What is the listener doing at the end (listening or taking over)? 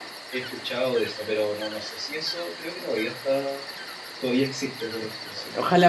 taking over